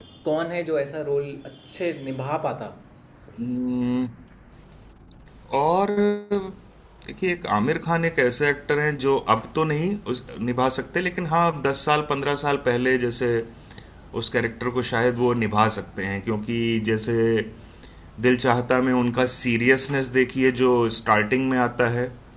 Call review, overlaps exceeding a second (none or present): none